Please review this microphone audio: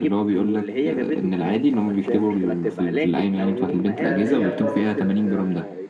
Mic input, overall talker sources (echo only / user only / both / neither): both